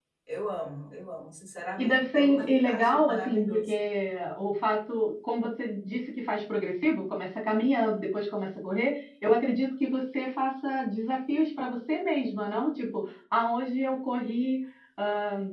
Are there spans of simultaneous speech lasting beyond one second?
Yes, from 1.8 s

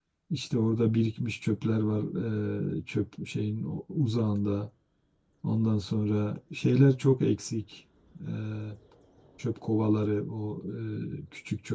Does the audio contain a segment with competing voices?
No

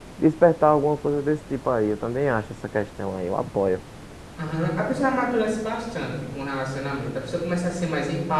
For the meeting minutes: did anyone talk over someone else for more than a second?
No

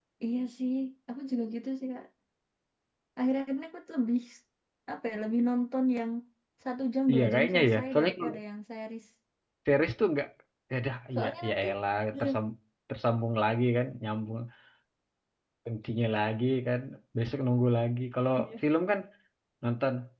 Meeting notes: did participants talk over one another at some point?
Yes, from 7.1 s

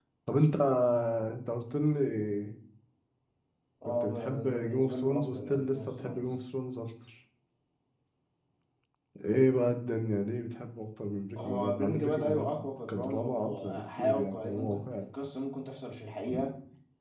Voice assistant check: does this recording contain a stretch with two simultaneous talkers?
Yes, from 3.8 s

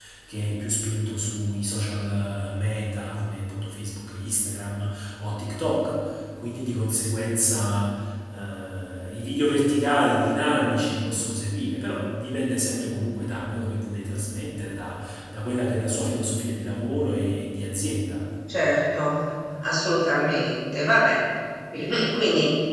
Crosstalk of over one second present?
No

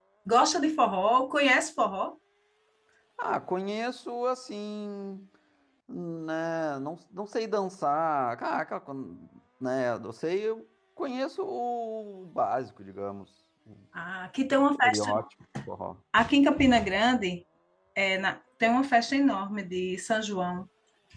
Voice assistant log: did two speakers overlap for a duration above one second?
No

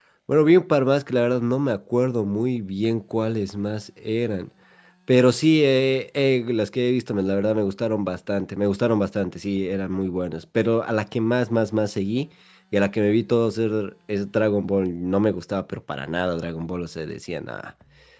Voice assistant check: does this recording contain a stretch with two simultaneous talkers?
No

